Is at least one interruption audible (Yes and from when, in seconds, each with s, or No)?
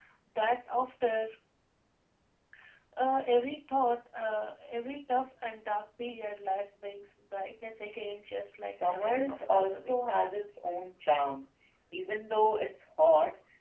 Yes, from 8.5 s